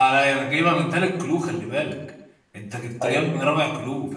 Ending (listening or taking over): listening